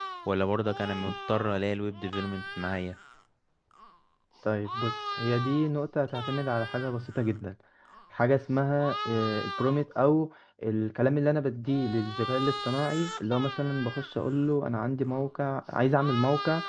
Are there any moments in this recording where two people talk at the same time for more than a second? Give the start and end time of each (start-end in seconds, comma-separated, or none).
none